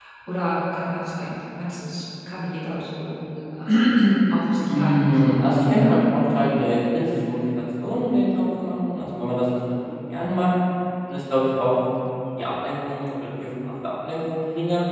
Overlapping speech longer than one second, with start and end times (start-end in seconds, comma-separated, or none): 4.7-6.1